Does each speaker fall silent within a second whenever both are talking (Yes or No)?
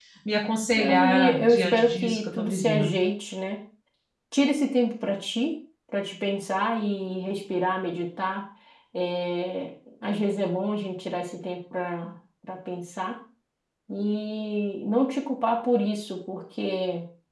No